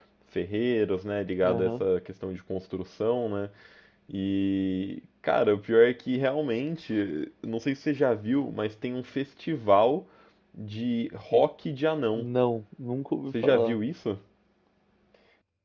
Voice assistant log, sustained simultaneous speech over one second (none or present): none